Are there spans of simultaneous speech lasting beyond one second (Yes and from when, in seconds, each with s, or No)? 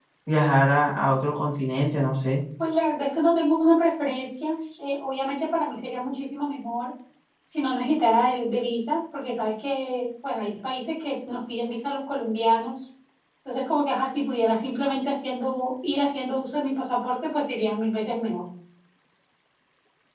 No